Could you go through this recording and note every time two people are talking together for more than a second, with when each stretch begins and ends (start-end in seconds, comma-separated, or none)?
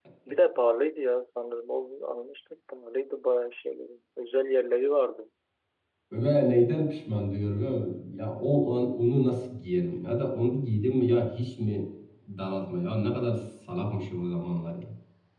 none